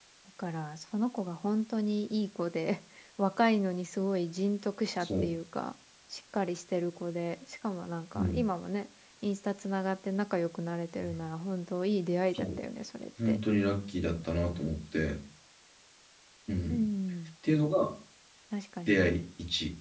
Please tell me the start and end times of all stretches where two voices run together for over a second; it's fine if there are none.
none

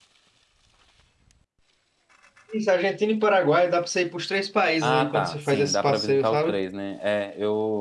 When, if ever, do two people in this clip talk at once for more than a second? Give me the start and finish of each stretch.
4.8-6.6

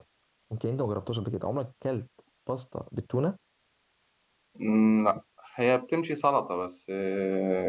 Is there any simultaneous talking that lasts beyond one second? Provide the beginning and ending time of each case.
none

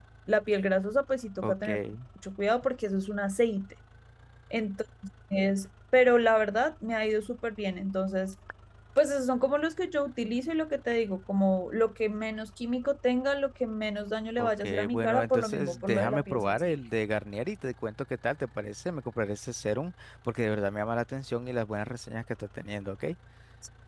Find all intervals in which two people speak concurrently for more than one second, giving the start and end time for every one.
14.4-16.8

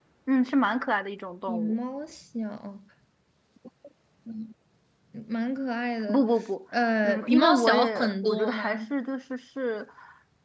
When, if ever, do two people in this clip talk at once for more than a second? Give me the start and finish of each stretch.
7.0-8.6

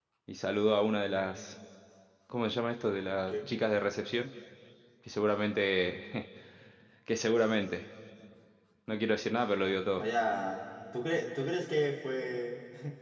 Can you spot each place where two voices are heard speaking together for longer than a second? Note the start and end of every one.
none

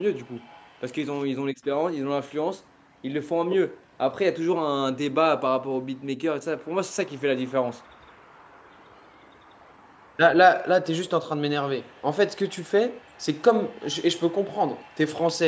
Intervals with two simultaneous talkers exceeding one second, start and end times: none

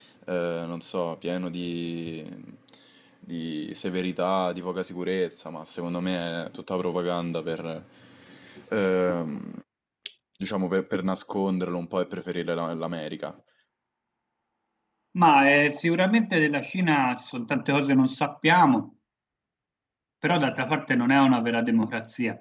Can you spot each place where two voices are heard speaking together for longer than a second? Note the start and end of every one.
none

